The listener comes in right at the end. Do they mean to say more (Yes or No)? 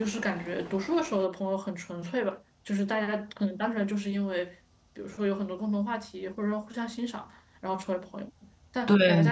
No